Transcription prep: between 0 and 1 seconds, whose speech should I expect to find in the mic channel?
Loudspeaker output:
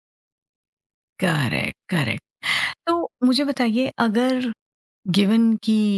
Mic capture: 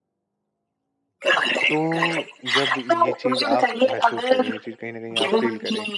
neither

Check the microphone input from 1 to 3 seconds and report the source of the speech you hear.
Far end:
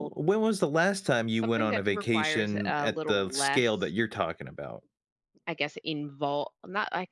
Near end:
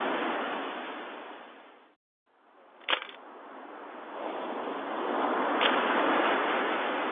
neither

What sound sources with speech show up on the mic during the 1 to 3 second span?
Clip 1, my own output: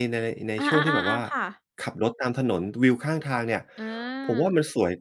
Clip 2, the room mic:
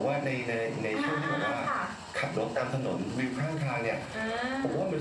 echo only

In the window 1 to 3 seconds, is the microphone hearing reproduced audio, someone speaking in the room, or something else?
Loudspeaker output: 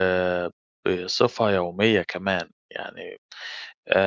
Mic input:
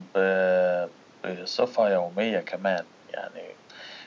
echo only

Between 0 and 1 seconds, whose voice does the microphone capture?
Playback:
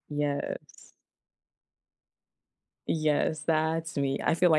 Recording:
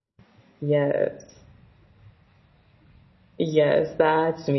echo only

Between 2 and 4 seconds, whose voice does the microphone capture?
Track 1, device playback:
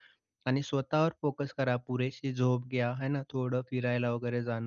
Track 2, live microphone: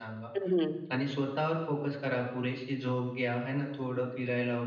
echo only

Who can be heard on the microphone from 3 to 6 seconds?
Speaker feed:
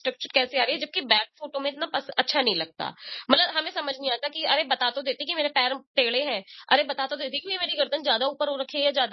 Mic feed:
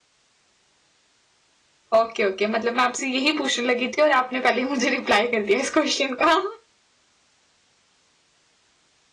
user only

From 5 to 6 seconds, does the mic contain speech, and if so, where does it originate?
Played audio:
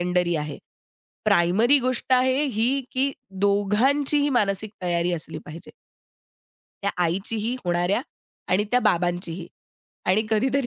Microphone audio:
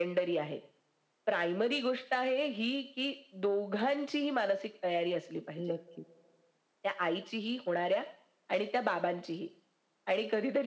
both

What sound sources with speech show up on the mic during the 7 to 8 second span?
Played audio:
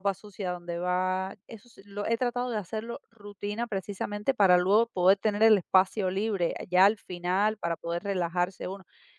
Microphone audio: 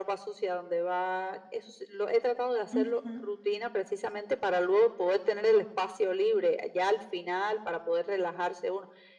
echo only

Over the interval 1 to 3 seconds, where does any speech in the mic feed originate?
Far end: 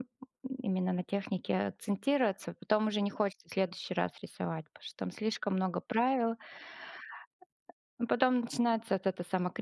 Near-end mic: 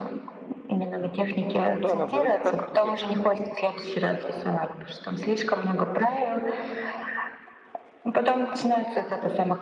both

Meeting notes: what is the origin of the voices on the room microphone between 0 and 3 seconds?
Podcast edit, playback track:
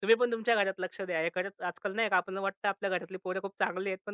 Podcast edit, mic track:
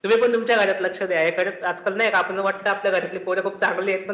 echo only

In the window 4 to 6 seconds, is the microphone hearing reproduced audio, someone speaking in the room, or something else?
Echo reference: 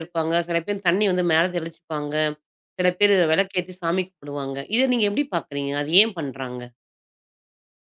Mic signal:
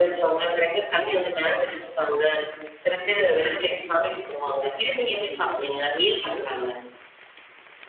echo only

